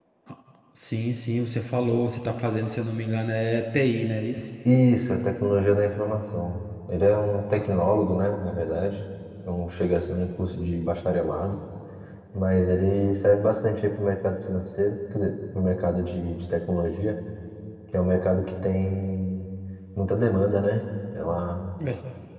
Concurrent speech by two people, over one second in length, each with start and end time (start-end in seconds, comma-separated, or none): none